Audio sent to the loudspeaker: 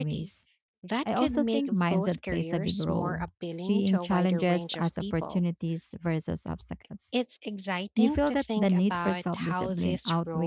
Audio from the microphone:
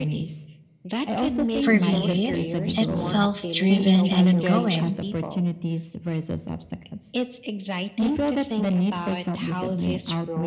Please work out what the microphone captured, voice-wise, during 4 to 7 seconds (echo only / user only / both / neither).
both